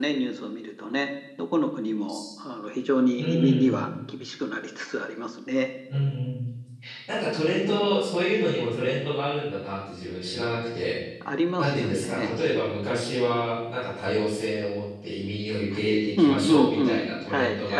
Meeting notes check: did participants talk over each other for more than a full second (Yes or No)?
Yes